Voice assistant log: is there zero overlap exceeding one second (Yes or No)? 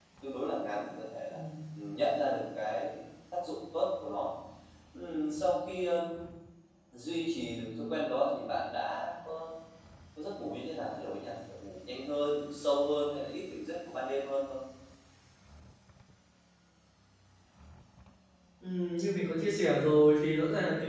Yes